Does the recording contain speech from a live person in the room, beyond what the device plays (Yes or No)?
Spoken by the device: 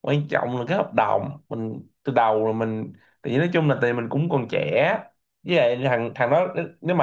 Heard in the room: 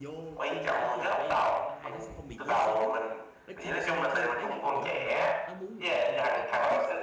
Yes